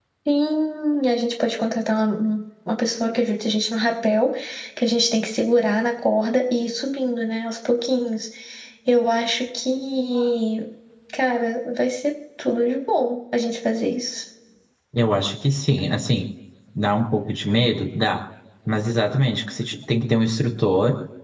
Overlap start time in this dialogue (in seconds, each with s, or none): none